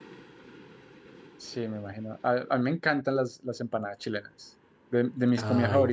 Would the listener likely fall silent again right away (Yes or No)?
Yes